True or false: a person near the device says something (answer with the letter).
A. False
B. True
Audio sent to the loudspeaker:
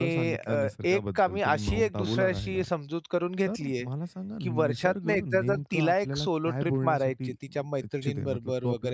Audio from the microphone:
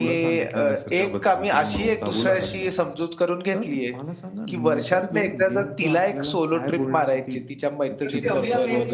B